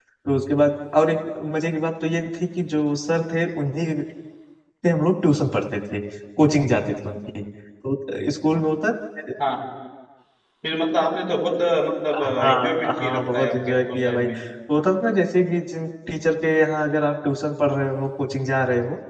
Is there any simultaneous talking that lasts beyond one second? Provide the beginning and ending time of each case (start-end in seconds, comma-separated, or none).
12.2-14.3